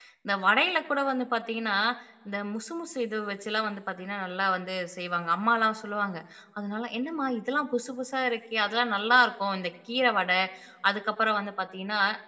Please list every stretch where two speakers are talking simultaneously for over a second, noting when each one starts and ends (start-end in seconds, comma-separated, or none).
none